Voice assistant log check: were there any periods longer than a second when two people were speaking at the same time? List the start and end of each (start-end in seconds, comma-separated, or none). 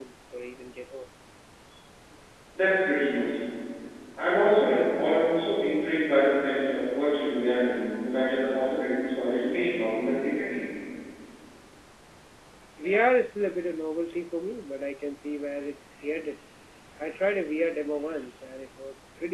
none